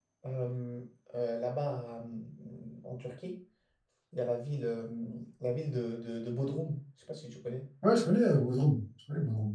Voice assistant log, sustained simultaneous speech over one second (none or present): none